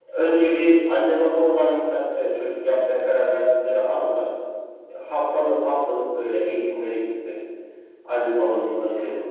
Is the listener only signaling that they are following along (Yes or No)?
Yes